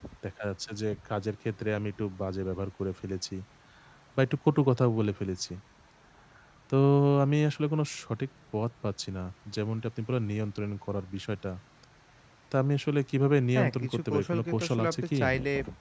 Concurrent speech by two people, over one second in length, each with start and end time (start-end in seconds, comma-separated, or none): 13.6-15.2